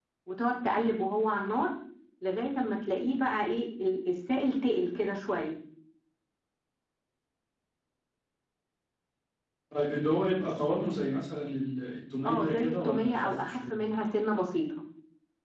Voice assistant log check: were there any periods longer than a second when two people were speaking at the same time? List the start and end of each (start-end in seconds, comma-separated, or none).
12.3-13.8